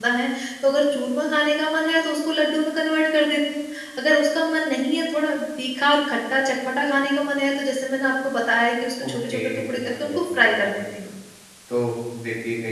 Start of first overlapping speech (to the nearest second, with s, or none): 9 s